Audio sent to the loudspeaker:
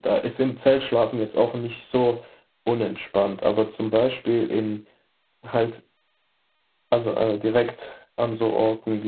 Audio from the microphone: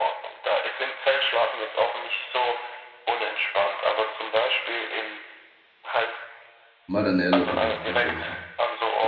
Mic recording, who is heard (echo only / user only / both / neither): both